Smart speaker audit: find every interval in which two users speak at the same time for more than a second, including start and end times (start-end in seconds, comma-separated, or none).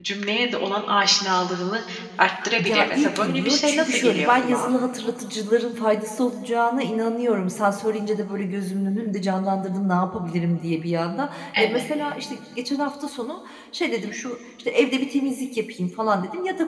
2.7-4.7